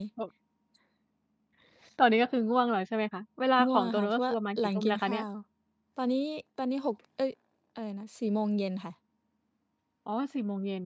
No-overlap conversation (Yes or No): No